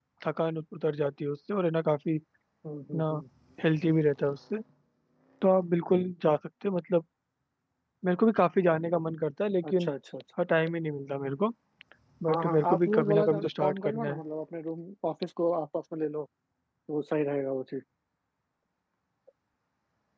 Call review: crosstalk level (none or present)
present